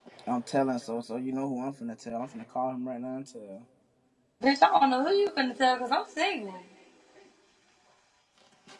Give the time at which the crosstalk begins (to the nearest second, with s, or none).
none